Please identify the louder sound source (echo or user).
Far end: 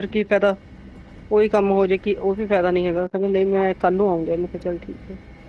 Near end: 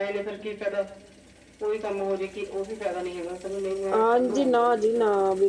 user